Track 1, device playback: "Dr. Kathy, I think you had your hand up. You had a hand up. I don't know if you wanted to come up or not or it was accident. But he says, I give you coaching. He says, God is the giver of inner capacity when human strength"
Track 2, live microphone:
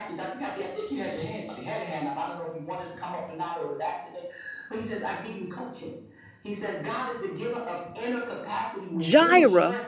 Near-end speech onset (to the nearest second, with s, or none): 9 s